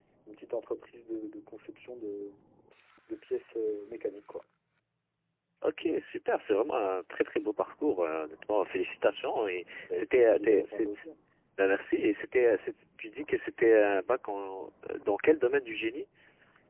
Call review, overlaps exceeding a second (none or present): present